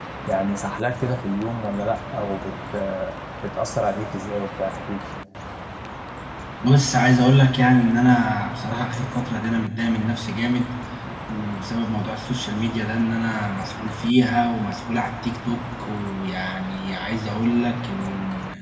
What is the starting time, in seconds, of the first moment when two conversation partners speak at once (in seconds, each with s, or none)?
none